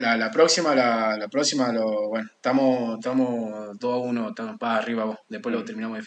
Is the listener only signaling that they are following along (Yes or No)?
No